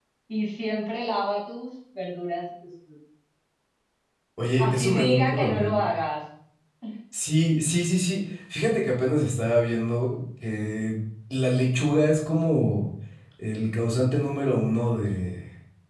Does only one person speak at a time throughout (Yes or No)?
No